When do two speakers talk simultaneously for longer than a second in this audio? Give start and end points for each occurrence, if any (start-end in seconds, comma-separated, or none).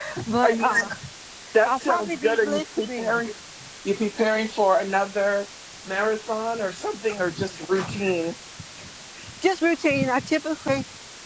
1.6-3.3